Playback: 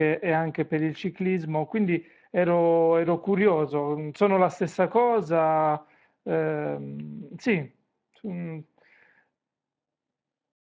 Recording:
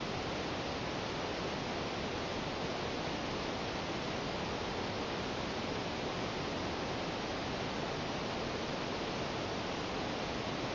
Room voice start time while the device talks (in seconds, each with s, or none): none